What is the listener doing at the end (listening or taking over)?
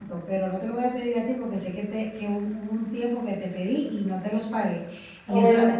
listening